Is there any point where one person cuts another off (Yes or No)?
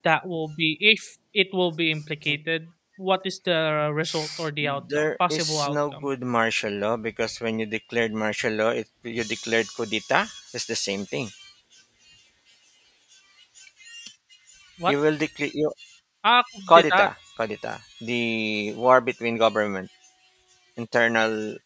Yes